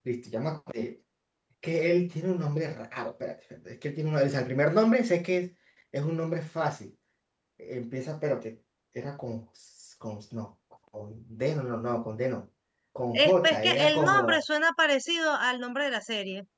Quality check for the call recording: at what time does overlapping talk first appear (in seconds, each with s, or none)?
13.1 s